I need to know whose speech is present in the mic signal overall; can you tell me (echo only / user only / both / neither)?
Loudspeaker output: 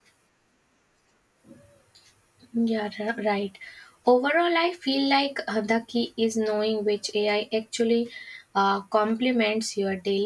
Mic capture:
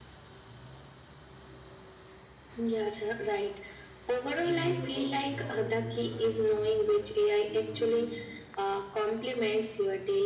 both